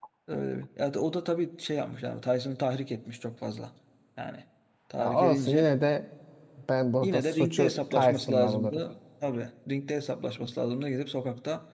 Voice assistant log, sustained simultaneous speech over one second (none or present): present